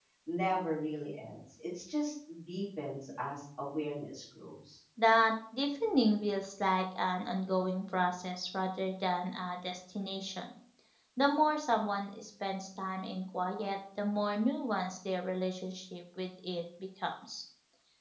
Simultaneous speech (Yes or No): No